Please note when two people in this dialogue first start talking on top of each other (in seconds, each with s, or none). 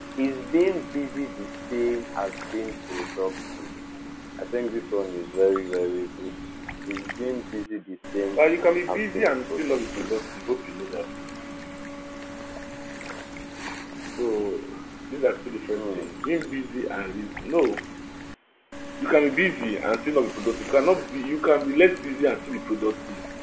8.9 s